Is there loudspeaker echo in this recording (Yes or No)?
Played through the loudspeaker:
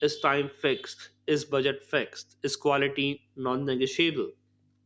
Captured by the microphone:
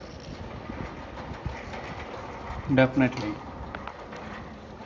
No